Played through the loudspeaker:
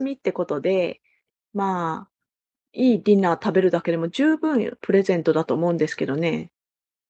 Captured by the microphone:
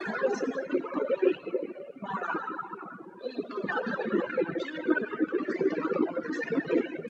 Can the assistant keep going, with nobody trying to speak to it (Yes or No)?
Yes